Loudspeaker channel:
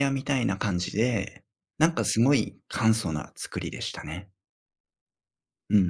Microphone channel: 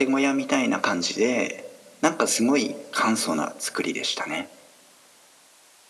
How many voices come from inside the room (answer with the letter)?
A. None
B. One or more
A